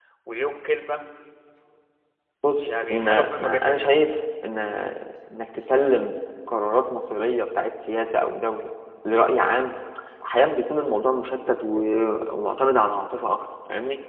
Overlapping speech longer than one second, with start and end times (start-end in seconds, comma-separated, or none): 2.6-3.9